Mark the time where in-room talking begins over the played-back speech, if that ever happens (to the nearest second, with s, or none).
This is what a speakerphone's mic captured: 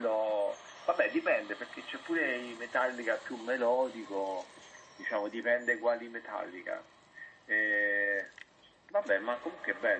none